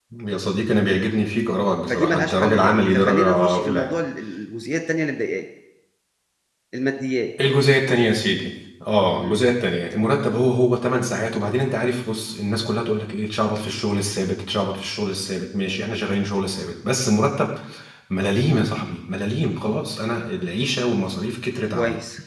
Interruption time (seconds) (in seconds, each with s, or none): 1.9 s